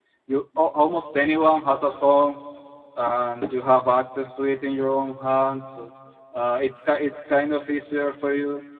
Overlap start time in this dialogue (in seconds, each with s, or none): none